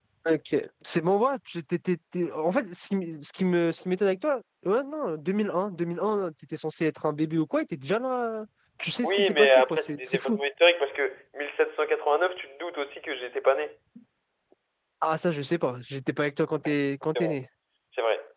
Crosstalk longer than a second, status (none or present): present